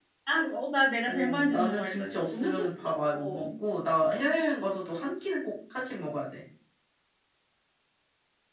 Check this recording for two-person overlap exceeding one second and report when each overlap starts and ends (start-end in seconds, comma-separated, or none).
1.1-3.5